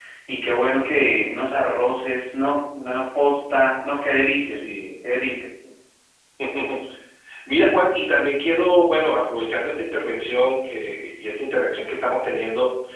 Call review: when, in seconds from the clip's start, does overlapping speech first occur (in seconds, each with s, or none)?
none